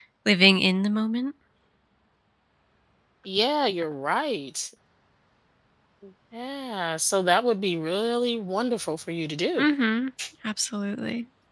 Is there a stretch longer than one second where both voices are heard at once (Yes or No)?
No